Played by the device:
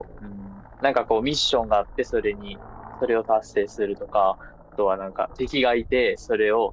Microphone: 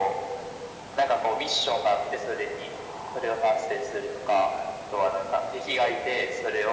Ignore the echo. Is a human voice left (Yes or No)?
No